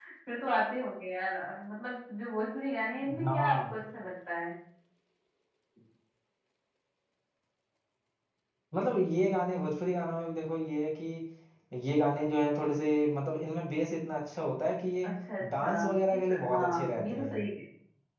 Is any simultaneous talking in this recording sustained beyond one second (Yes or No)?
Yes